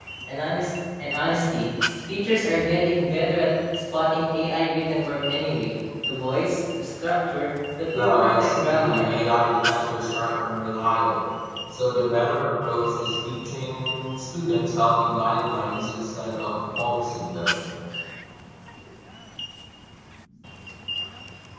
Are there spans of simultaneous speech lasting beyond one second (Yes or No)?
Yes